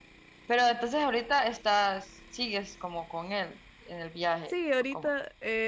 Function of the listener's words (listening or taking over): taking over